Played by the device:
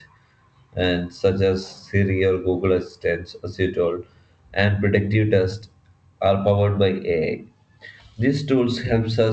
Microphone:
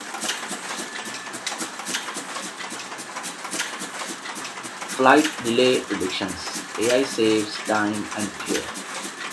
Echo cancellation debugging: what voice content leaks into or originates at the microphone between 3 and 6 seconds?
user only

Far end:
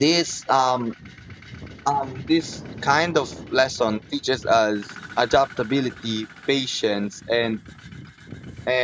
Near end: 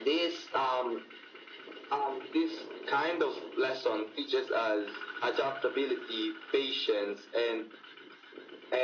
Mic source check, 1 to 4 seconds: echo only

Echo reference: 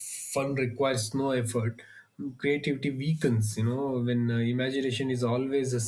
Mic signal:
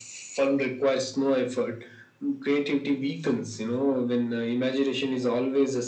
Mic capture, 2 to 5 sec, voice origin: echo only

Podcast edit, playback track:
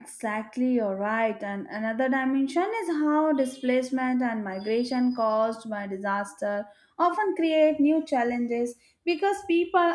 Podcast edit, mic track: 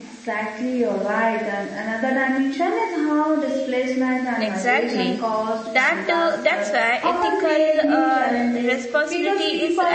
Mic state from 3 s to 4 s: echo only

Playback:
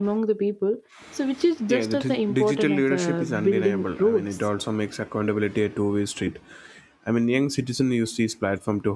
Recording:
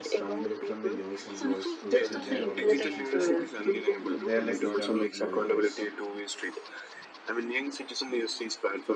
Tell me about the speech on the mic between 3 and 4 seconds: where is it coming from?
both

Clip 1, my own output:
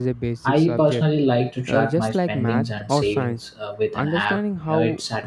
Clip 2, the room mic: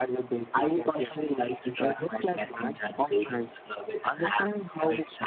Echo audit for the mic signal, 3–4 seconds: echo only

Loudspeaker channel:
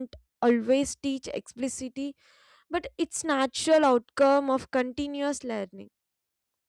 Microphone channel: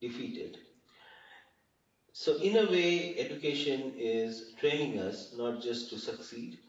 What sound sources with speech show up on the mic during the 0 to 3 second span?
user only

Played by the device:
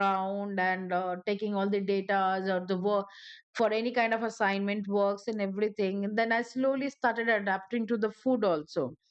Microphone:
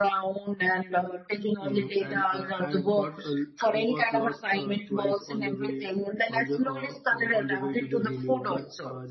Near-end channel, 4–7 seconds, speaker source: both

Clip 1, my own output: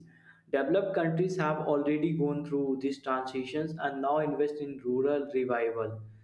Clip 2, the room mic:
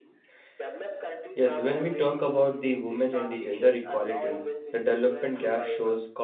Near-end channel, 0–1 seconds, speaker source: echo only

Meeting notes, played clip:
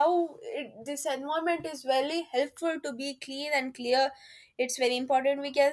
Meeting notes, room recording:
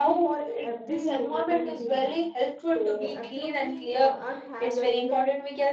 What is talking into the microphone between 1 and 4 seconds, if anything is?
both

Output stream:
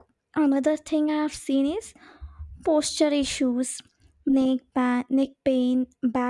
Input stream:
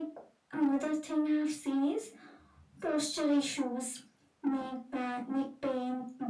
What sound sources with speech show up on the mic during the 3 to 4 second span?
echo only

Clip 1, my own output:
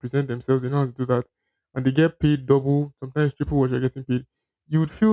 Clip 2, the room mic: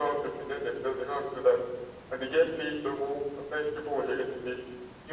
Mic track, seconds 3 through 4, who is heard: echo only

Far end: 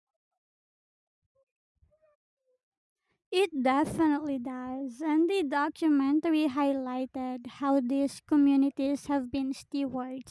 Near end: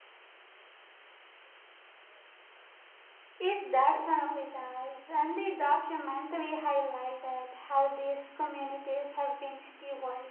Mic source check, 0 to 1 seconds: neither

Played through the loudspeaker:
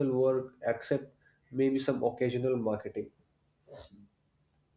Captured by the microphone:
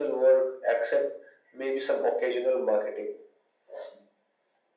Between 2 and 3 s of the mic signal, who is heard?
echo only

